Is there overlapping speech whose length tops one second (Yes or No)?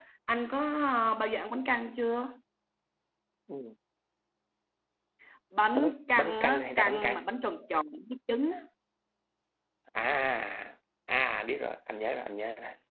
Yes